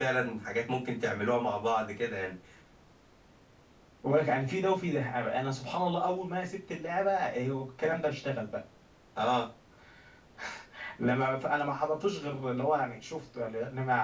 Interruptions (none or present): none